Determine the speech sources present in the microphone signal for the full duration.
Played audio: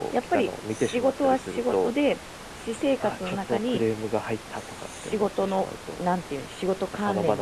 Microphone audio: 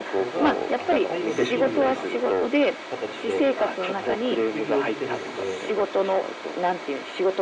both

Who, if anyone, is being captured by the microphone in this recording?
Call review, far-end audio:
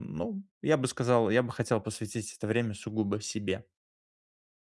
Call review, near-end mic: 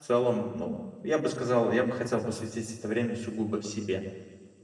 echo only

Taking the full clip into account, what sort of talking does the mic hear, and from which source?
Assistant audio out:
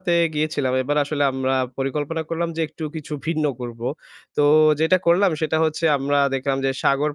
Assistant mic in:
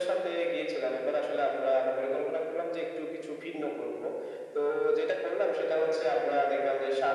echo only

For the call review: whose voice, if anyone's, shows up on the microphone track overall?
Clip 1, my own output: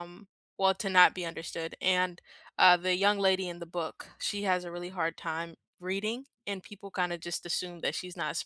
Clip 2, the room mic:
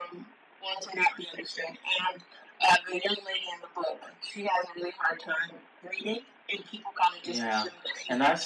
both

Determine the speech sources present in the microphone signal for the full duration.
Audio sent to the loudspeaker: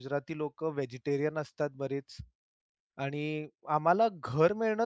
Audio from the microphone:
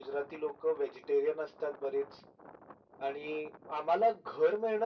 echo only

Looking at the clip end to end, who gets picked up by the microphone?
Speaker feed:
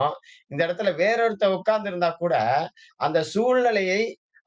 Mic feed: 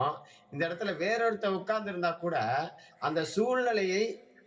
echo only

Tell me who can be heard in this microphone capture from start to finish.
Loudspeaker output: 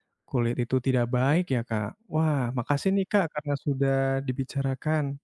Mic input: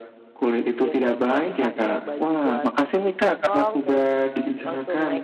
both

